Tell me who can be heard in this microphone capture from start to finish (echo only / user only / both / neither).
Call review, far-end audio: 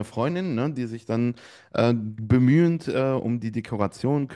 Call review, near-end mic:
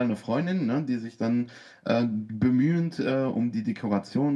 echo only